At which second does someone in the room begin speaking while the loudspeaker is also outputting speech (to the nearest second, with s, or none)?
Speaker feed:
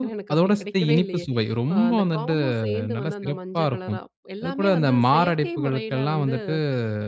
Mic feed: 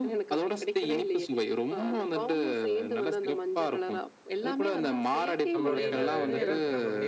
6 s